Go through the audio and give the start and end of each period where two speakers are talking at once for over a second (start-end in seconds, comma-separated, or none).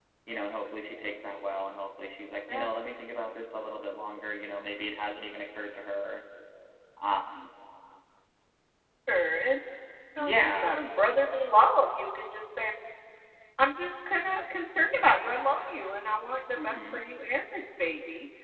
none